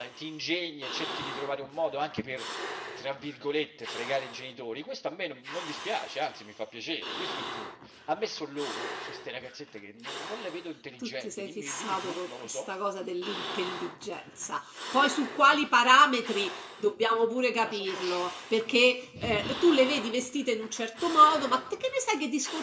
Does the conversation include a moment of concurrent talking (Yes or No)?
Yes